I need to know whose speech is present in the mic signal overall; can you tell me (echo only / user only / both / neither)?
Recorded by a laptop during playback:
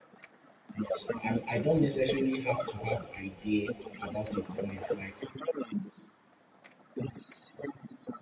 both